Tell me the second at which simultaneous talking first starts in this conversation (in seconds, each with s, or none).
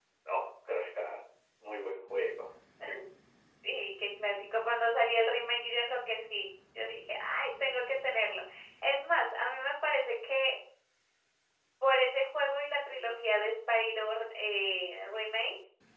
none